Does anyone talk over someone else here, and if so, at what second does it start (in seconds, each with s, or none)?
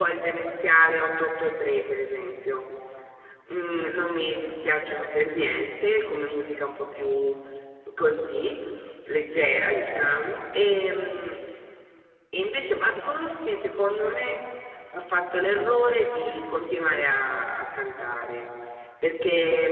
none